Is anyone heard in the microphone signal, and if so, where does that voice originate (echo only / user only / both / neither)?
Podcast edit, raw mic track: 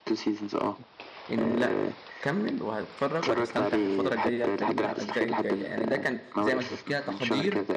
both